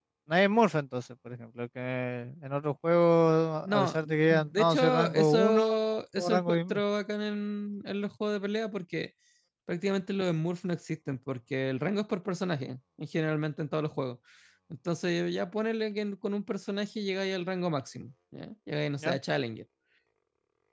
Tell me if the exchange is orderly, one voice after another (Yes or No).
No